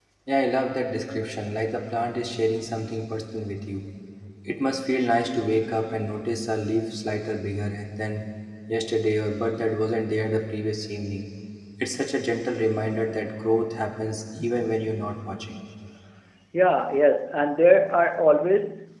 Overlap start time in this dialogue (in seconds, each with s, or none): none